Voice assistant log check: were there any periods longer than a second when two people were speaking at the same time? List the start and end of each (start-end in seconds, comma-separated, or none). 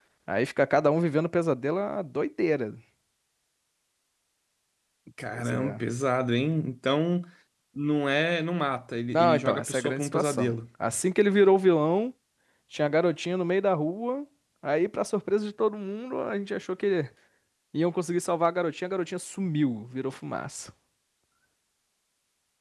9.1-10.6